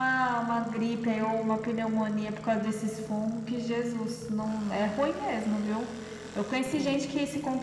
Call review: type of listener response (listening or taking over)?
listening